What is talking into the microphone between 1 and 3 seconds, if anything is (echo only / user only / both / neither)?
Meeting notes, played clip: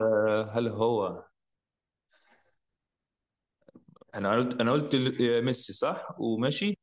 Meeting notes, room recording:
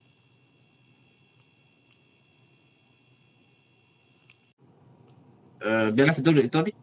neither